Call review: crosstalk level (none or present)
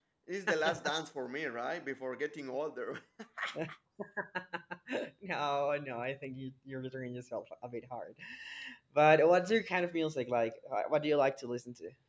none